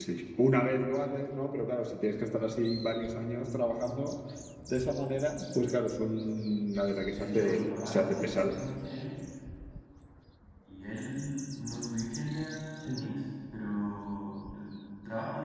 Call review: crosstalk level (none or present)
present